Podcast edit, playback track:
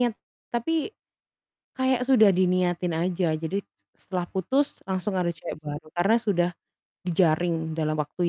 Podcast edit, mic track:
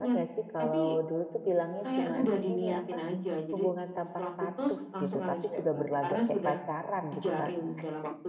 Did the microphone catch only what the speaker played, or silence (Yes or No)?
No